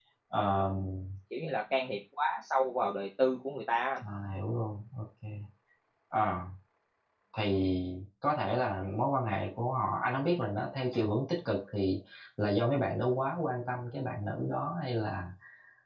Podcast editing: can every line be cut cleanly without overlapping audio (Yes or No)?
Yes